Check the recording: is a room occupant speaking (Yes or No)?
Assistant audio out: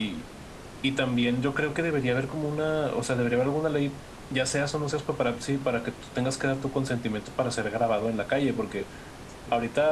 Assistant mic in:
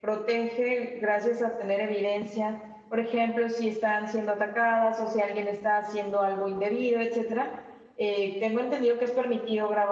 Yes